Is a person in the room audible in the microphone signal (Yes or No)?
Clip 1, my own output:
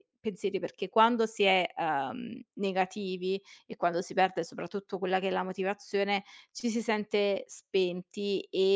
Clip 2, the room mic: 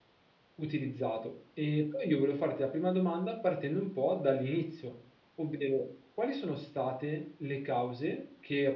Yes